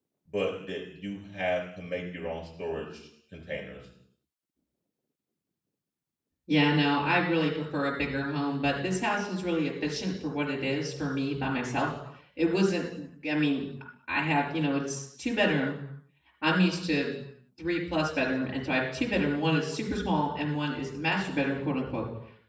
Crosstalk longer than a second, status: none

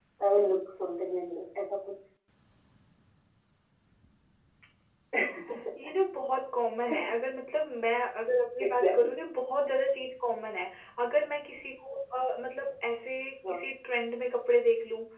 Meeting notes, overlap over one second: none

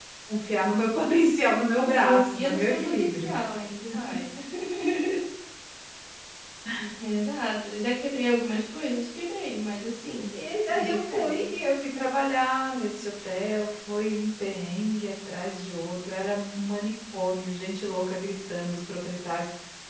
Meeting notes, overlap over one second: present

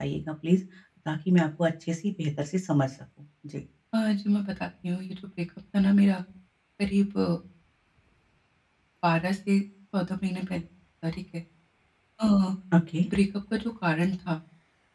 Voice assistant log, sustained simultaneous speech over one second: none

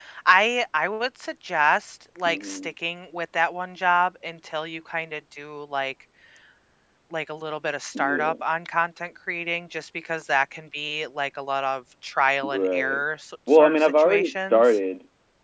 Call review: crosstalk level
present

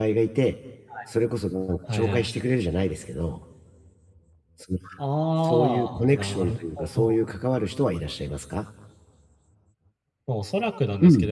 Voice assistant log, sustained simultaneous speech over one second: present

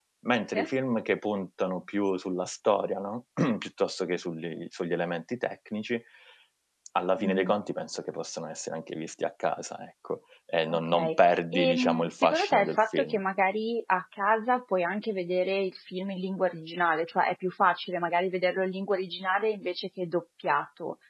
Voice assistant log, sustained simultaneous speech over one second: present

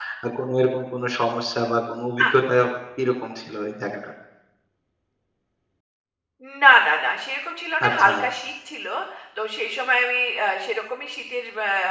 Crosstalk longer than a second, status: none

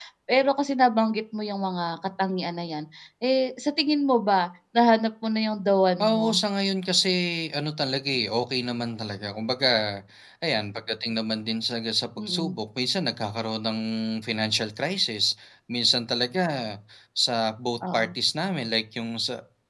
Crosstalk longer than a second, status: none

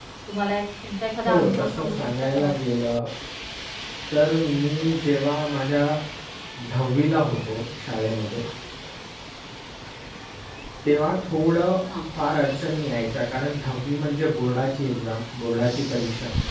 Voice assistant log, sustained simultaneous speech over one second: present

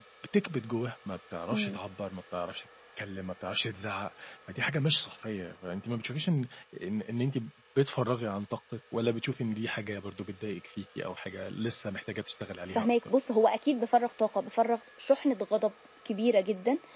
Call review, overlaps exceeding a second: none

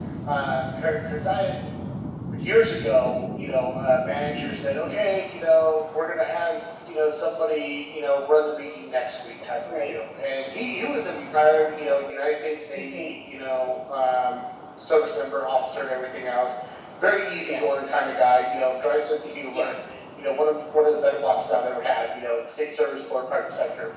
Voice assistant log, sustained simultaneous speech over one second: none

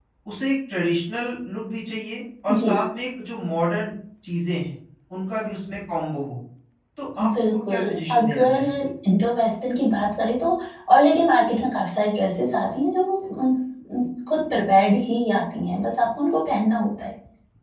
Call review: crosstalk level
present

